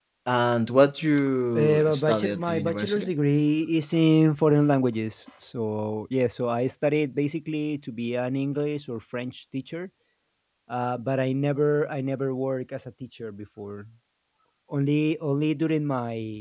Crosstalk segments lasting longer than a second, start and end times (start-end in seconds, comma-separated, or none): 1.6-3.1